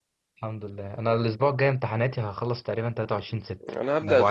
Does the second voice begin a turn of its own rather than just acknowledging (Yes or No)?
Yes